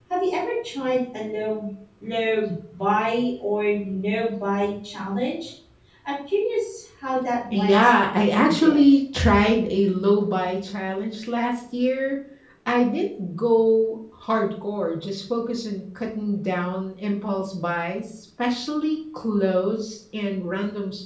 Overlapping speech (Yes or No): Yes